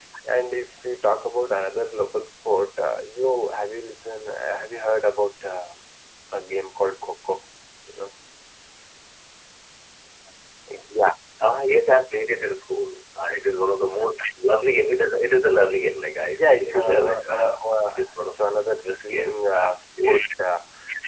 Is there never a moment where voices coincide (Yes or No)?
No